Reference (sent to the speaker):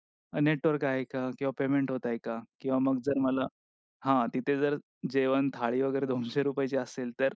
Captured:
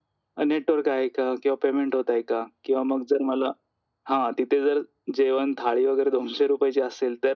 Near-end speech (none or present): none